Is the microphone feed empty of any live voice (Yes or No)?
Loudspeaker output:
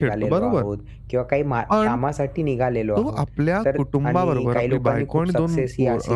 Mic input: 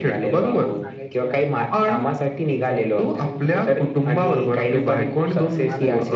No